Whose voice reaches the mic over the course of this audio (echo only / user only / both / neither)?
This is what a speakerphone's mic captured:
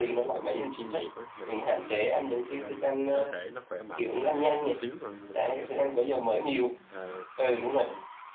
both